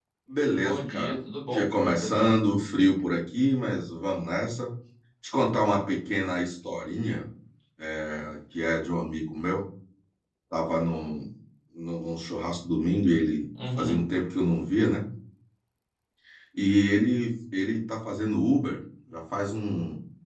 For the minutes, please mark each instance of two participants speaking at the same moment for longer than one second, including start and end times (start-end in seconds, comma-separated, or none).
0.6-2.3